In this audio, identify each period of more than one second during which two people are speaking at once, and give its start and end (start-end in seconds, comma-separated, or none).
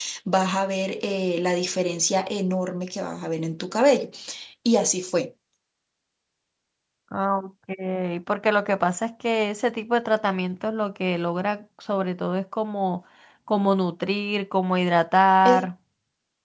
none